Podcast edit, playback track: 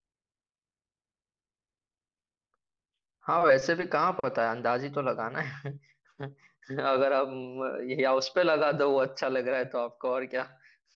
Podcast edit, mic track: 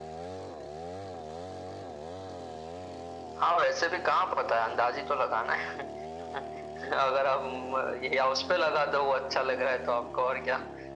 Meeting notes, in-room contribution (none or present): none